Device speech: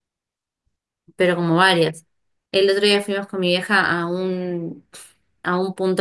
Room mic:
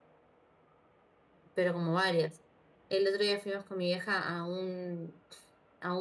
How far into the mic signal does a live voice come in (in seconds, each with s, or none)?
none